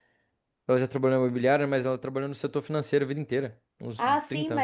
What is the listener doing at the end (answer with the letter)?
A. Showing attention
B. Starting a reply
B